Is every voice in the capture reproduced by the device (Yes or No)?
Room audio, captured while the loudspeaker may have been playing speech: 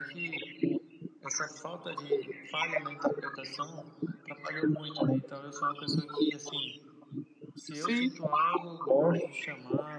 No